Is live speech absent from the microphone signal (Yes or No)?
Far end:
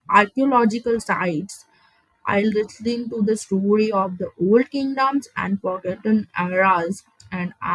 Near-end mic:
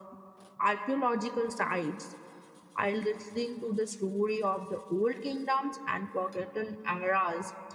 Yes